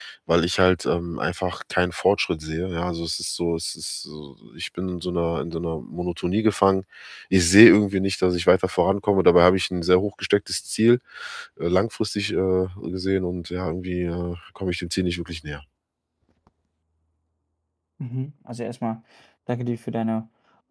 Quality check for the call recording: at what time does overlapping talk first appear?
none

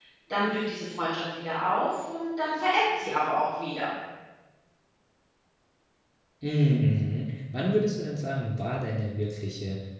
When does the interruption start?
none

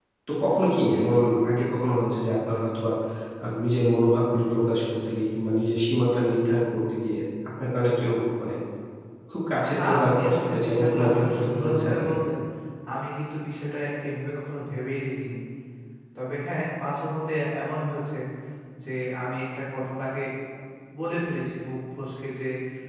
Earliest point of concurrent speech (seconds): 10 s

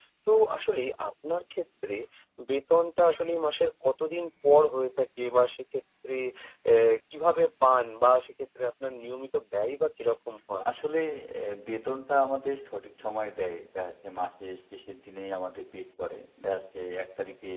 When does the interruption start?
none

